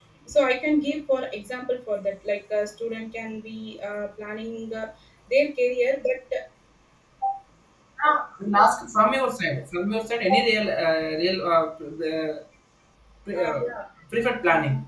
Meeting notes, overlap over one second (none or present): none